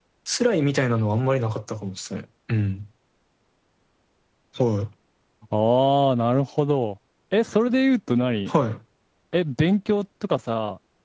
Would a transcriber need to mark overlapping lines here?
No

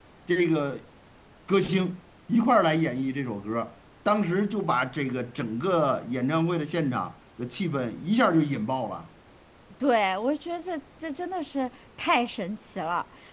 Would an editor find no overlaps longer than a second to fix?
Yes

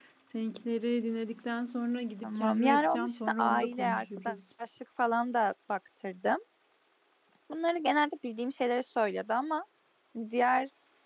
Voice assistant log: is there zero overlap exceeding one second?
No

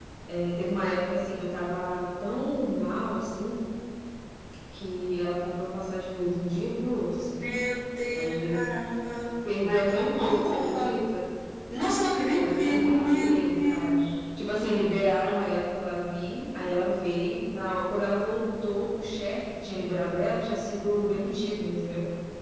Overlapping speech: Yes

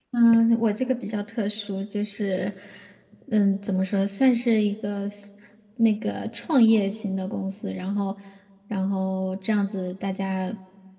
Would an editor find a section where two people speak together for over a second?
No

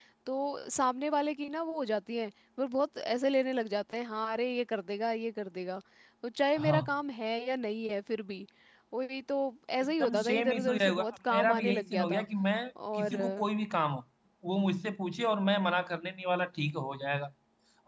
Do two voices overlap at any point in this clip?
Yes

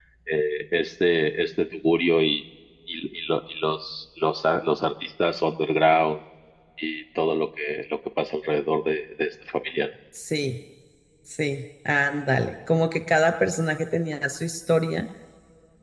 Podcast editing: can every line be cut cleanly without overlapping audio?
Yes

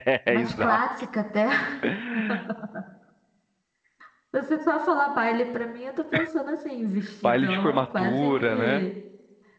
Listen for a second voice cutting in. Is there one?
Yes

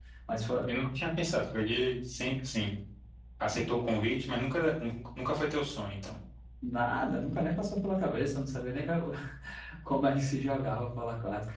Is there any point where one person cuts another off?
No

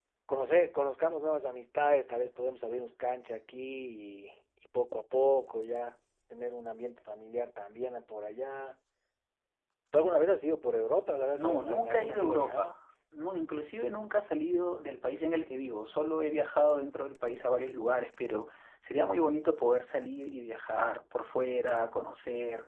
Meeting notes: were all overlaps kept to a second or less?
No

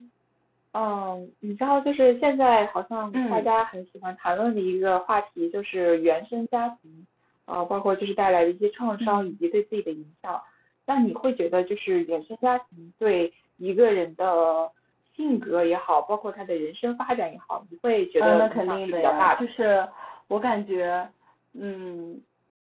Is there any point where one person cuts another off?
Yes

